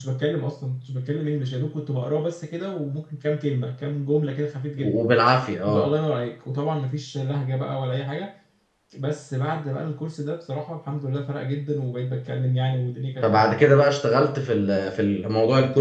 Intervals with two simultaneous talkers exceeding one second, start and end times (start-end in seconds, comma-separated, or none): none